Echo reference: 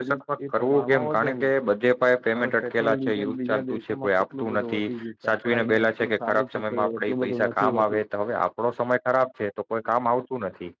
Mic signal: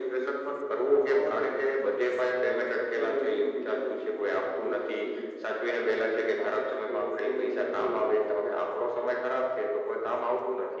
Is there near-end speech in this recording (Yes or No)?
No